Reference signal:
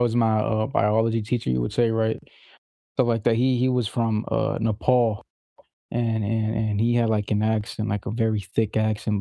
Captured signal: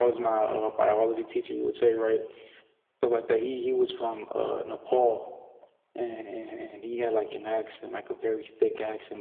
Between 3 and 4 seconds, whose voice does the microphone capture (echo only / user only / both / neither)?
echo only